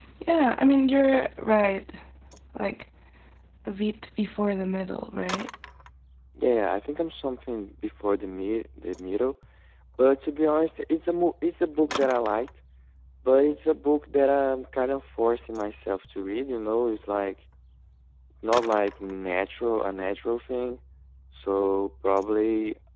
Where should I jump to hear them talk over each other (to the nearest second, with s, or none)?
none